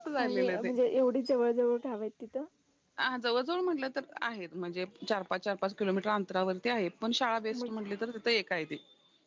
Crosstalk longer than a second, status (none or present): none